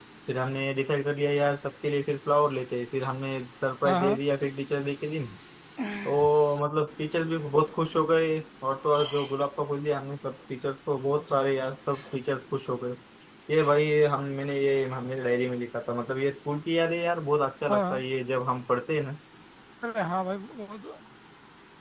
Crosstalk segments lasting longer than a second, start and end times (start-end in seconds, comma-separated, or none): none